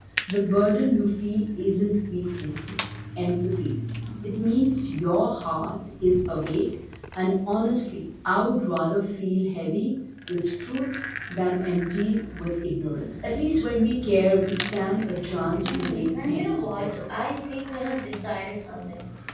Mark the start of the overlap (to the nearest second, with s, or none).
16 s